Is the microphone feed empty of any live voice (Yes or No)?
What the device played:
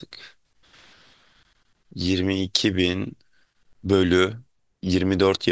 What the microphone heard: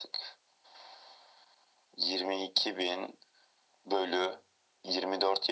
Yes